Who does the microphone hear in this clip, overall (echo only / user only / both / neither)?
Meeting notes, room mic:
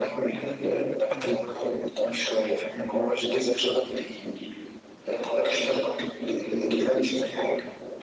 both